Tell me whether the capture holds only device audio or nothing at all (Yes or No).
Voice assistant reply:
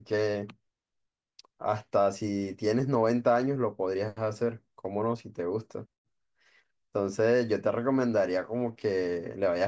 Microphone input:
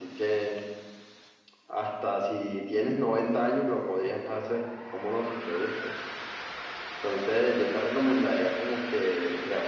Yes